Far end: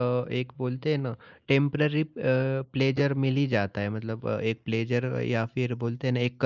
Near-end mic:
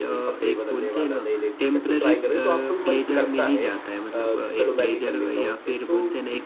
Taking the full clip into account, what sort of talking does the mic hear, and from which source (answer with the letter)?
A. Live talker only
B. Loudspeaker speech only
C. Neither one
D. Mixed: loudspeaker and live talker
D